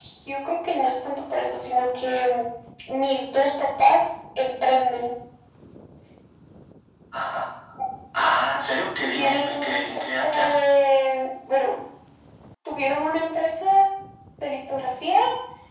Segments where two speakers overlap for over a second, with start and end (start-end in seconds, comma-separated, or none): 9.1-10.6